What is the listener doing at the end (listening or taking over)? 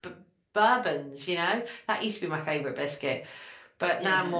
taking over